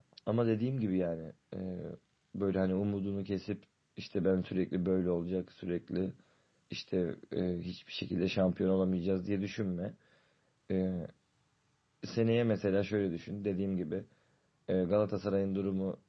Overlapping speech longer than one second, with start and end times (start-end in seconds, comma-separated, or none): none